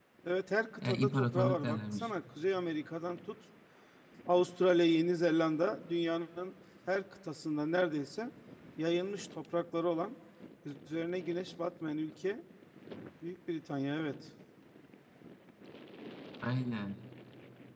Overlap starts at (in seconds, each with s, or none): 0.8 s